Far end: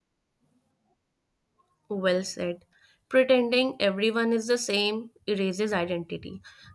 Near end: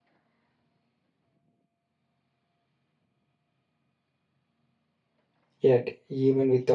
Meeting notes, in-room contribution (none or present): present